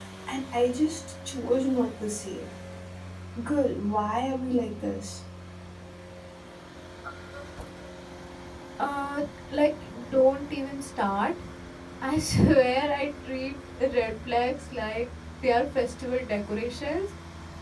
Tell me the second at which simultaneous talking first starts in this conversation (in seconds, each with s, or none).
none